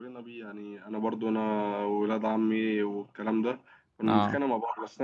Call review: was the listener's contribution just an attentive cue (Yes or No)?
Yes